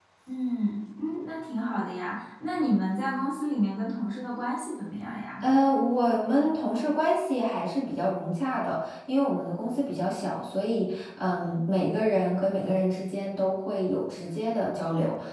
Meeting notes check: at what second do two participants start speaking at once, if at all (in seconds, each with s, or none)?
none